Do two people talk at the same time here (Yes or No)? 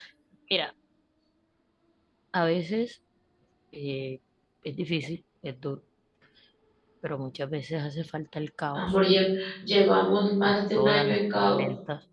Yes